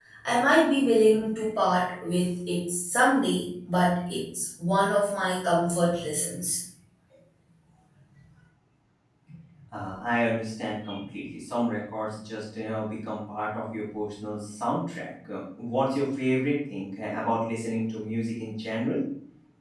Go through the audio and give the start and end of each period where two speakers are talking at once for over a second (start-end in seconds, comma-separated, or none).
none